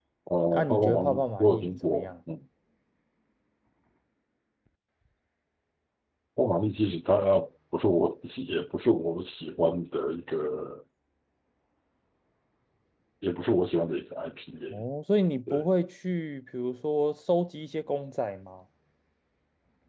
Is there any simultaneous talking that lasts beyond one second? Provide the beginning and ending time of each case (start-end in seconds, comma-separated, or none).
0.5-2.1